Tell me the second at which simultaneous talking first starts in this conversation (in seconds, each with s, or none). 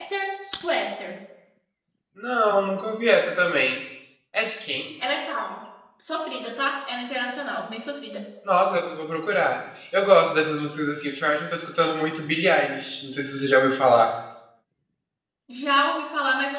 none